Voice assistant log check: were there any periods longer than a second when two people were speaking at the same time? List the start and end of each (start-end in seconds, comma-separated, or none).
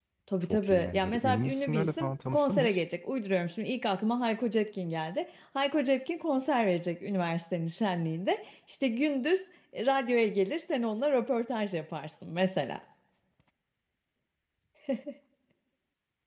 0.5-2.7